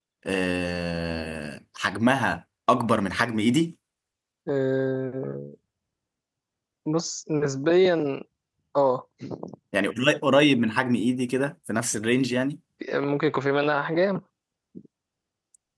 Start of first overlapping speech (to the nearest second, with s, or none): none